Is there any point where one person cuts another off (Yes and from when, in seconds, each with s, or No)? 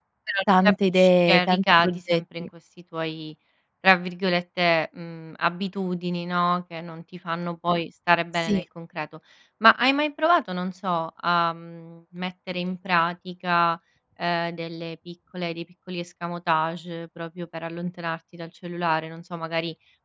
Yes, from 0.7 s